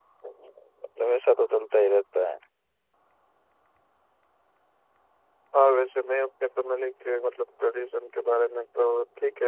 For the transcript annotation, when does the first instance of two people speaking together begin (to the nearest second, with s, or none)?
none